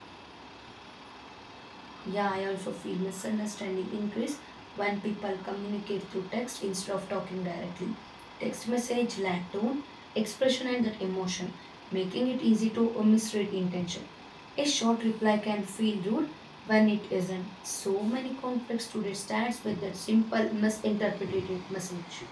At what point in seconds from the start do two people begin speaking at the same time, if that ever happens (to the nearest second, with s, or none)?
none